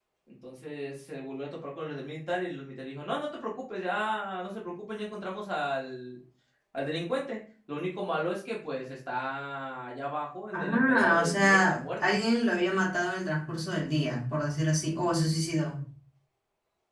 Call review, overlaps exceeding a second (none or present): present